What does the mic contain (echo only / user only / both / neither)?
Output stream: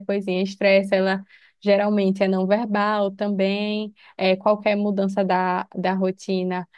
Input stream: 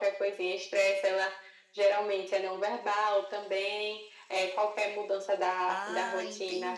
both